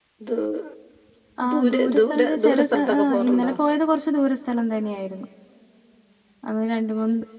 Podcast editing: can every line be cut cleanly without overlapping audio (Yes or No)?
No